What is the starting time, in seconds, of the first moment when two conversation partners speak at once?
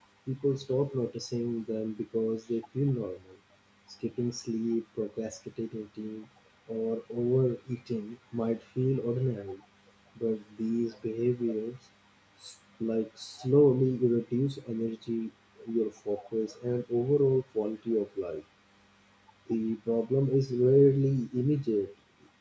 none

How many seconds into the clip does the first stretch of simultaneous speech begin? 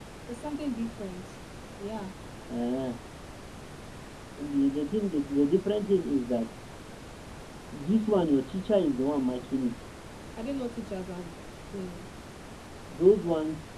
none

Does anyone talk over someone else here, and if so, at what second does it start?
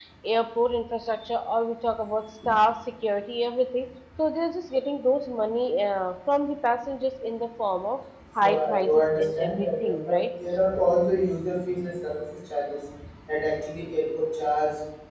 8.4 s

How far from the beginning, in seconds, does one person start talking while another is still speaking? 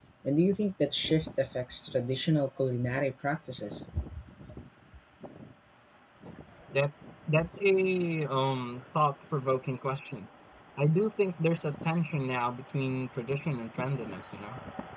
none

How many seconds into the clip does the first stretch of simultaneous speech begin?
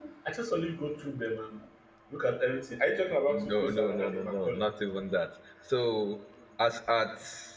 3.3 s

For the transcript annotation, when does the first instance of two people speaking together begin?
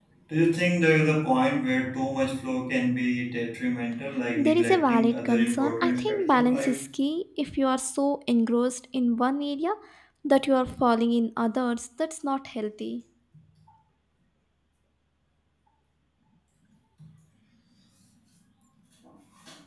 4.4 s

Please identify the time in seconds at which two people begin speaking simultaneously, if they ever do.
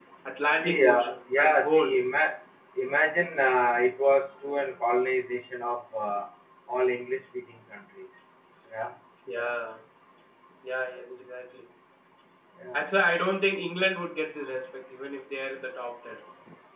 0.6 s

